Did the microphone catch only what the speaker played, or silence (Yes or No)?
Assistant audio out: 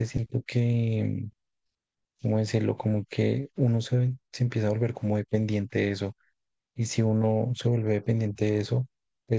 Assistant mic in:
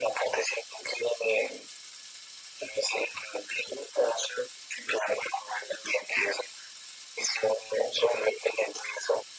Yes